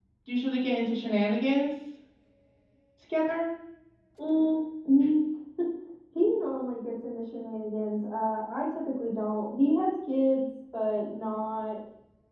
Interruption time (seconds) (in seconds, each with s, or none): none